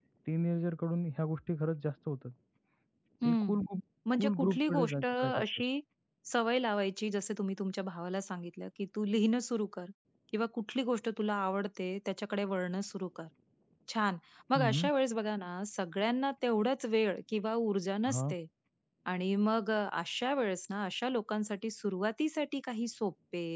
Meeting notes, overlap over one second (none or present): present